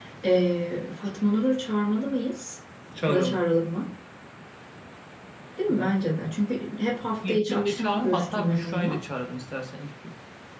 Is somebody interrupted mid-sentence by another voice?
Yes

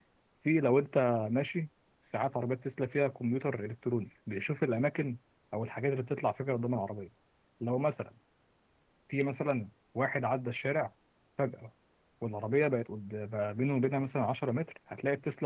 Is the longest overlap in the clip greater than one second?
No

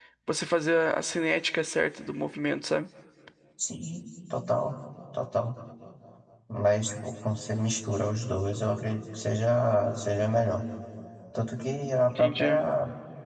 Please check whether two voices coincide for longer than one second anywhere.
No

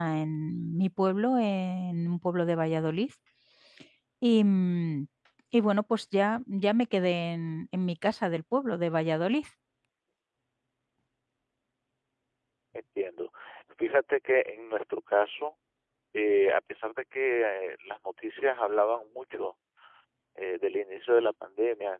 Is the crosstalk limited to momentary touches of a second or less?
Yes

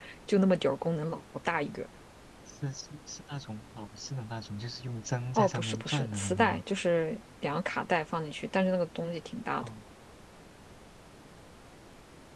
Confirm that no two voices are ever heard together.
No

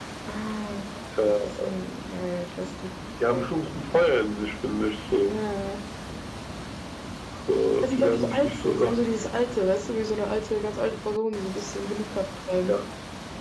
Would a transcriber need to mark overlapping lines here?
Yes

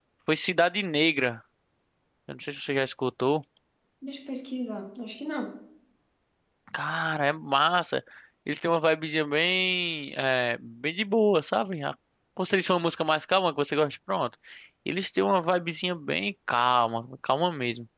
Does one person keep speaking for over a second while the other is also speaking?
No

